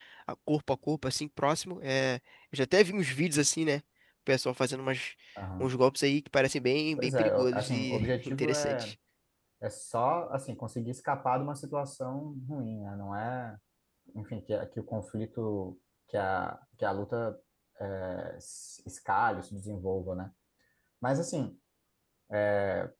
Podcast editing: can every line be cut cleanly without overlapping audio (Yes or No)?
No